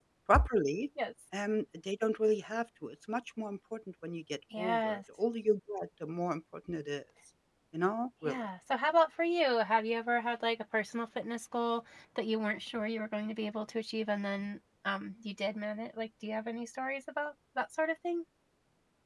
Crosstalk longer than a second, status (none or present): none